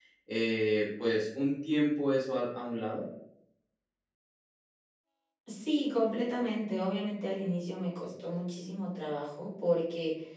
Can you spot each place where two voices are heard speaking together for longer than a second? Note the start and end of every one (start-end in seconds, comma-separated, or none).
none